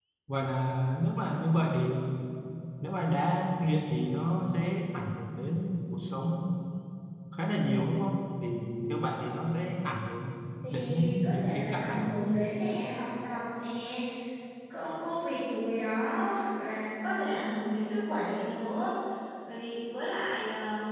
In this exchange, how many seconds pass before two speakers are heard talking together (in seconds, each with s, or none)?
10.7 s